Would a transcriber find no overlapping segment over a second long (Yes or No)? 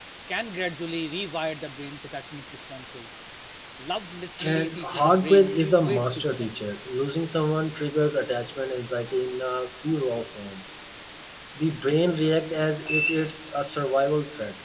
No